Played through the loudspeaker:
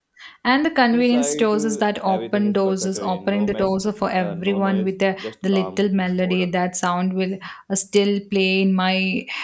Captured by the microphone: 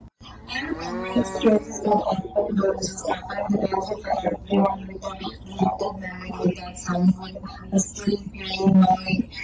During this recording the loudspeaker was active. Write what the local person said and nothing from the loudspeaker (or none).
none